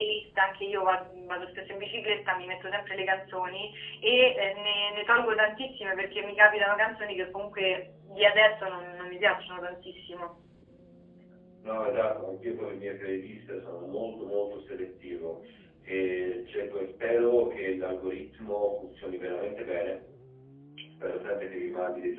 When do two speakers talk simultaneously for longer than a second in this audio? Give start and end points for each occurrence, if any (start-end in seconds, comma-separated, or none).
none